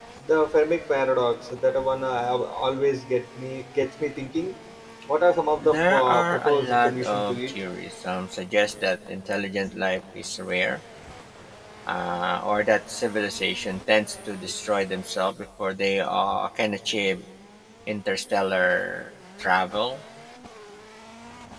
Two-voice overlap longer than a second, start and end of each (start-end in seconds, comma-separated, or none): 5.6-7.5